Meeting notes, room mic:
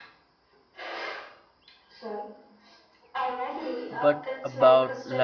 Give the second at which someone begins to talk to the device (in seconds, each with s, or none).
3.9 s